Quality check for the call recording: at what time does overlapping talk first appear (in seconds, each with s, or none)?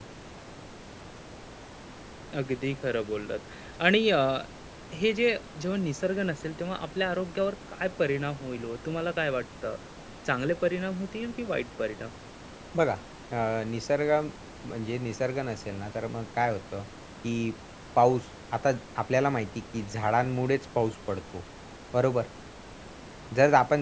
none